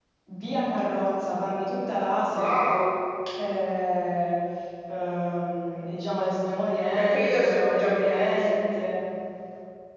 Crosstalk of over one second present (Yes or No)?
Yes